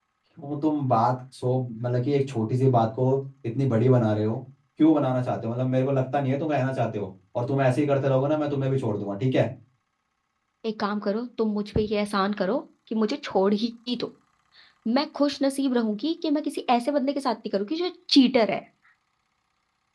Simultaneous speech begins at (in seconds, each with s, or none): none